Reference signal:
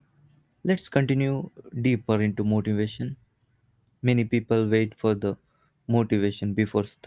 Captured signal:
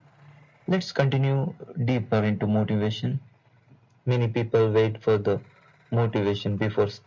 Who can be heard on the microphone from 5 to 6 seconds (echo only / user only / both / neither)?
echo only